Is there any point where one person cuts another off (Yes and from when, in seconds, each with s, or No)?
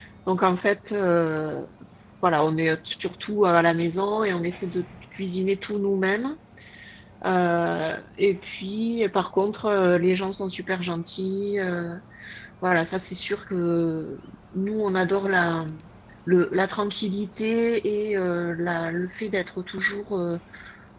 No